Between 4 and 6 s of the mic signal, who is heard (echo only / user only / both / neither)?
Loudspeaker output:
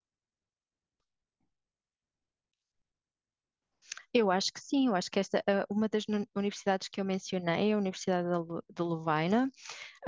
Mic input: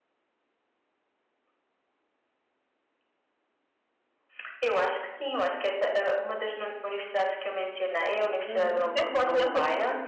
echo only